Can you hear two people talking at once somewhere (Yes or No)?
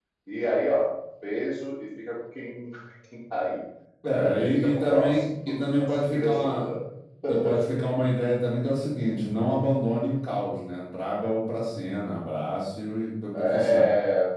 Yes